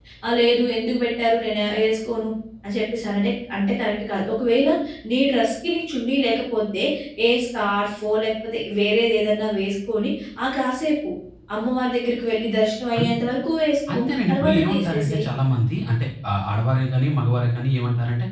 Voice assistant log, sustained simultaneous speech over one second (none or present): present